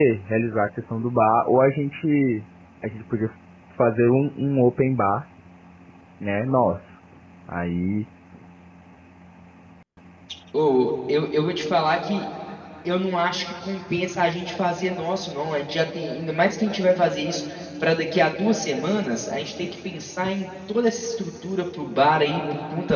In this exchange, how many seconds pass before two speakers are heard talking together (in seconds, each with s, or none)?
none